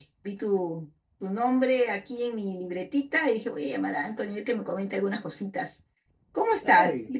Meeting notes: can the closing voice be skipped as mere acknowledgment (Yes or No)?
No